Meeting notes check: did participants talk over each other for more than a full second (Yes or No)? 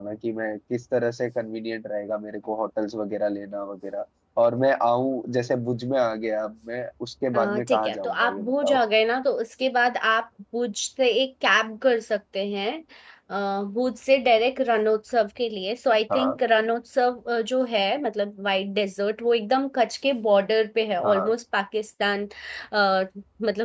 Yes